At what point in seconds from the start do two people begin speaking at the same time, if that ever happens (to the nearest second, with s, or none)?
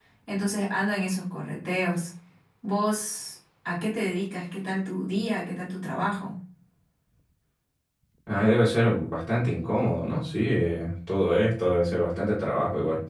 none